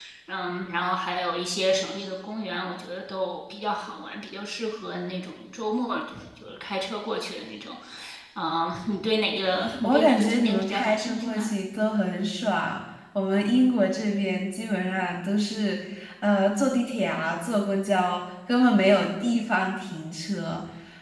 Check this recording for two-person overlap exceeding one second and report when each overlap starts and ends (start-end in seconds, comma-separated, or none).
9.8-11.5